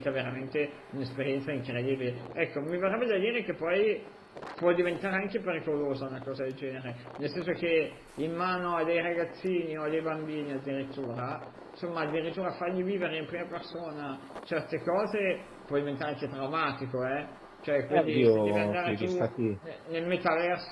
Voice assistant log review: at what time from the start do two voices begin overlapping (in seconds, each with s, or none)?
17.9 s